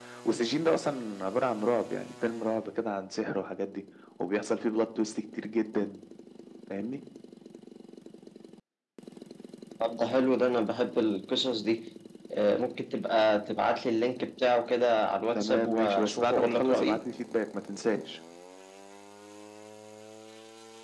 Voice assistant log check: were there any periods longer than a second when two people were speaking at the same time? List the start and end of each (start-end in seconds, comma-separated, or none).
15.4-17.0